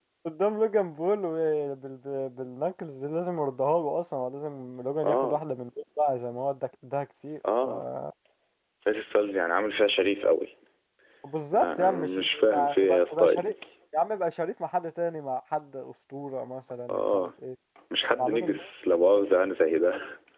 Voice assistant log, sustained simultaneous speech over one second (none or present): present